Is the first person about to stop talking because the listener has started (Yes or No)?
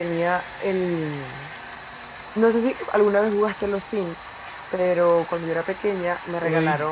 No